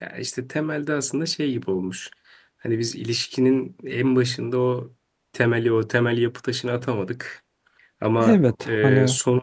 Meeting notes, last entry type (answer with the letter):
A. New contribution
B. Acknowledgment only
B